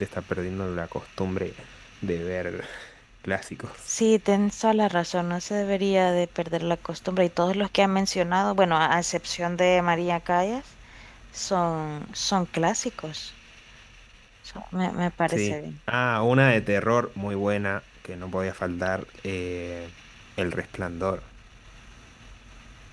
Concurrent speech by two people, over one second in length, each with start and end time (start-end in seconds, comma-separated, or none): none